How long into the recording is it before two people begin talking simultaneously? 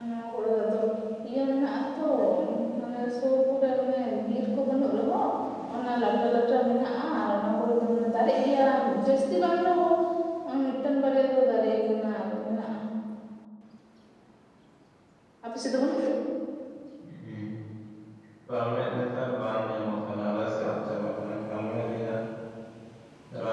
none

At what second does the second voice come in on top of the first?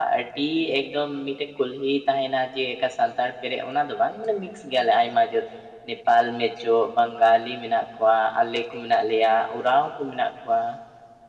none

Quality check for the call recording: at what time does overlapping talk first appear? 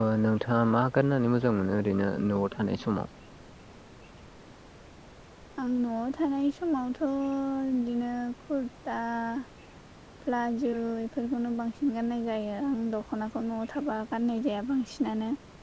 none

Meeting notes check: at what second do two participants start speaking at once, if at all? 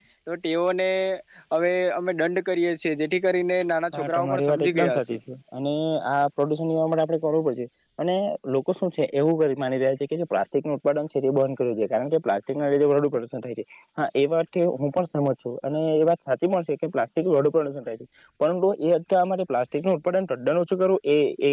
3.9 s

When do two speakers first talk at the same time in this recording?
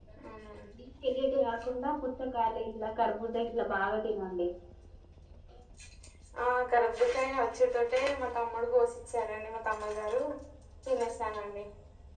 none

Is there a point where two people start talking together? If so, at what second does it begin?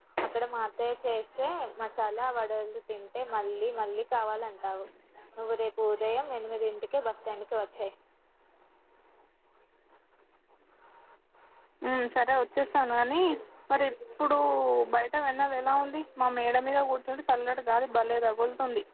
none

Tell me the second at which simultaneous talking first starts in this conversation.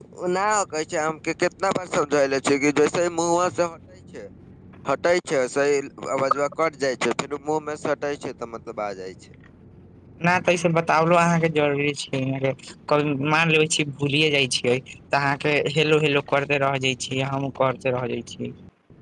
none

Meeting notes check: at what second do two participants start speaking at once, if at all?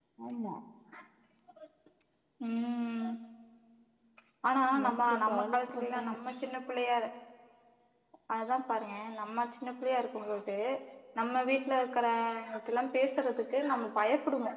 4.7 s

